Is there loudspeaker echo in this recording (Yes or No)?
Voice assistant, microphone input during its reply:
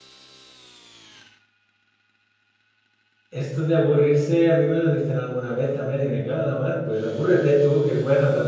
No